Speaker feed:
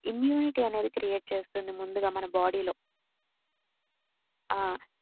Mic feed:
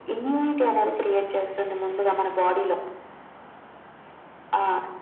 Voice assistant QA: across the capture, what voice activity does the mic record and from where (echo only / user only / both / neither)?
echo only